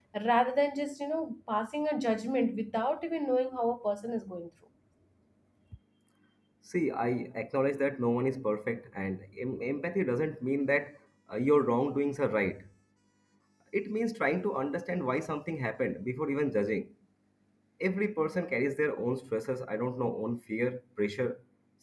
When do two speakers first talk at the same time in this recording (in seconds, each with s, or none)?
none